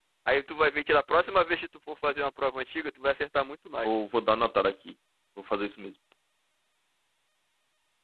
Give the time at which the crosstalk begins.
none

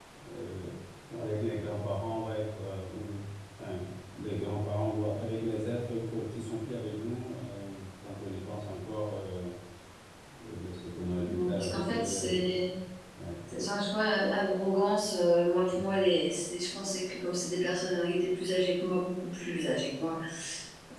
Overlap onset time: 11.3 s

